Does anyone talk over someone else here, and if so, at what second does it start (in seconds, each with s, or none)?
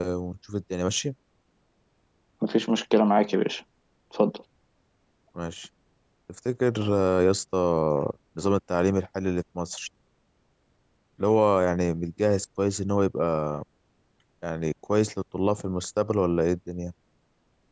none